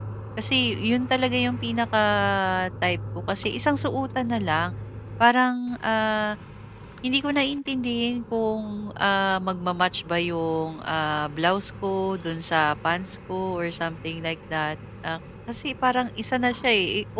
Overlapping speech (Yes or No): No